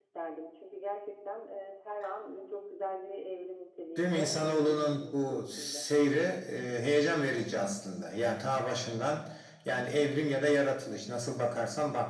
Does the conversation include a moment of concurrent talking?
Yes, from 4.0 s

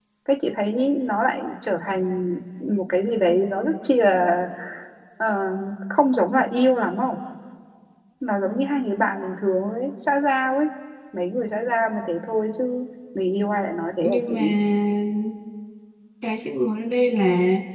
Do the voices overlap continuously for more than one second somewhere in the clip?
No

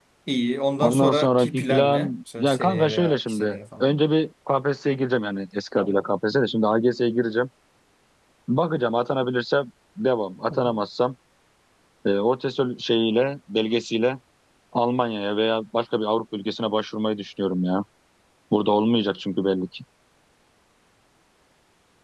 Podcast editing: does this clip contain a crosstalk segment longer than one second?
Yes, from 0.8 s

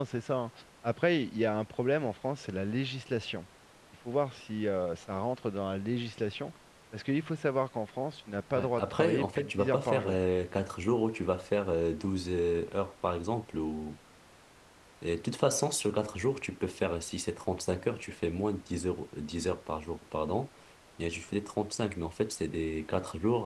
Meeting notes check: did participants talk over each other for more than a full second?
Yes, from 8.6 s

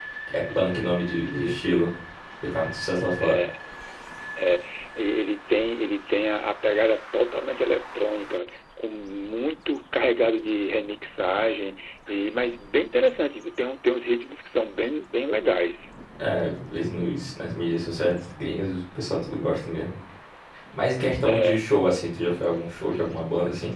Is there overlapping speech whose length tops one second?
Yes, from 0.6 s

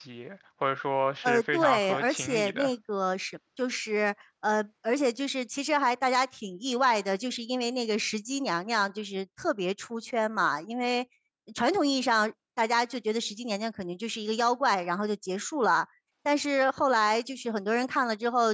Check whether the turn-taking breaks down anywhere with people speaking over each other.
Yes, from 1.2 s

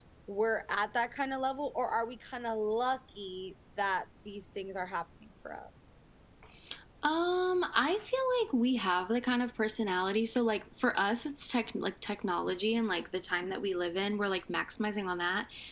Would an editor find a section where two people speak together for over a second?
No

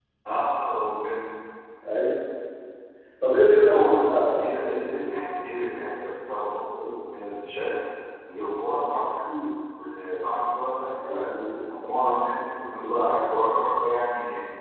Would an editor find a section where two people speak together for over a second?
Yes, from 3.6 s

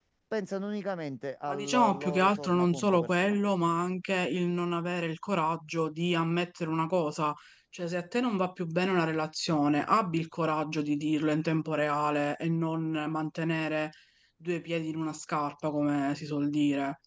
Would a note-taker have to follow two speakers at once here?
Yes, from 1.5 s

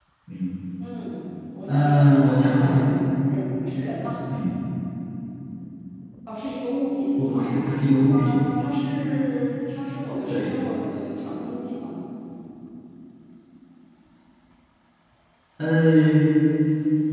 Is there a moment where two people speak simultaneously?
Yes, from 1.7 s

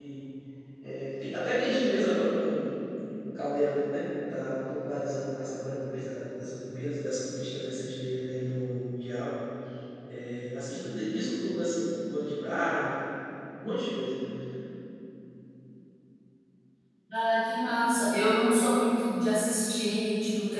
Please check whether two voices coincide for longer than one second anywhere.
No

